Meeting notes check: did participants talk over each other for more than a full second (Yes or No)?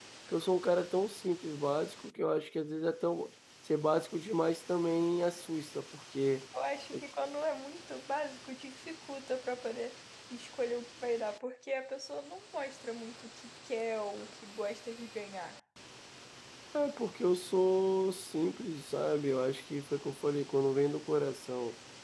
No